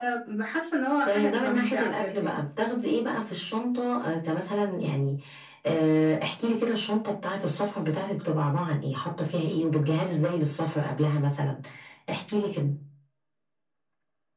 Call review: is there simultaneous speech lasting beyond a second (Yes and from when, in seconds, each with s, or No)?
Yes, from 1.1 s